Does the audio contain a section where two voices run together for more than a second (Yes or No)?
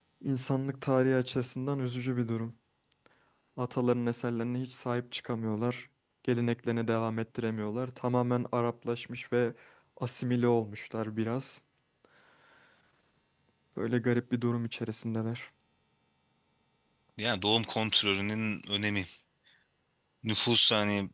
No